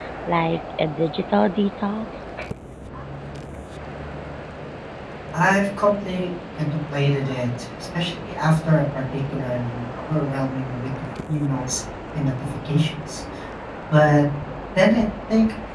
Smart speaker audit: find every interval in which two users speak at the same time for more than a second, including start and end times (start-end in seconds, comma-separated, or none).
none